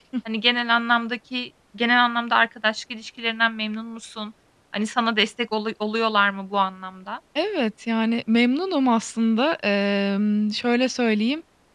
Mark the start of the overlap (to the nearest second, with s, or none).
none